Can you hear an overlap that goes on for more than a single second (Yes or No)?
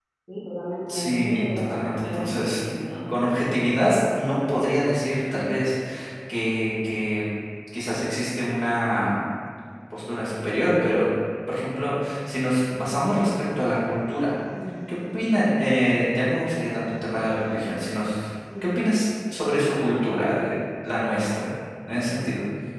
Yes